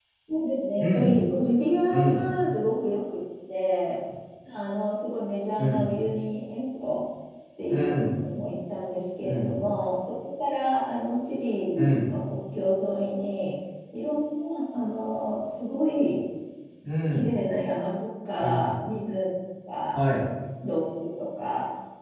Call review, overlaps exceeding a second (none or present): none